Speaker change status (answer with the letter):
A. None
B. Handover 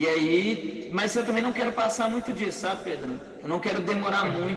A